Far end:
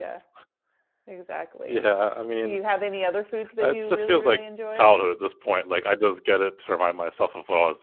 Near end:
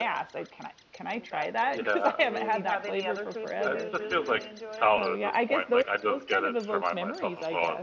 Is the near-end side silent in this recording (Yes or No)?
No